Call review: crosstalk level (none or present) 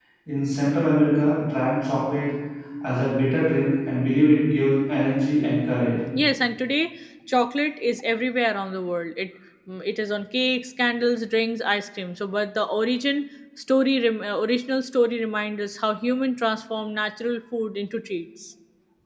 none